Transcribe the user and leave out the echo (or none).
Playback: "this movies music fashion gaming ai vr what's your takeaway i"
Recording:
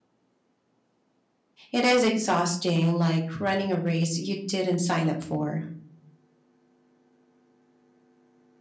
It is exhausting, like running a race you didn't sign up for.